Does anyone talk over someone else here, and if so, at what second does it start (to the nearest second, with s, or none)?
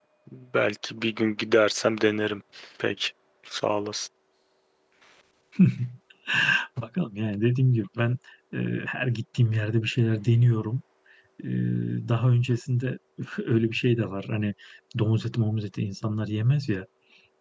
none